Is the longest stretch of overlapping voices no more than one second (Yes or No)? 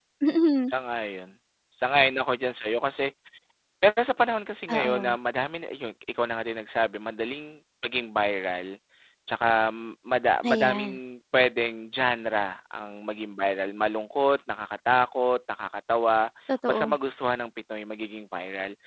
Yes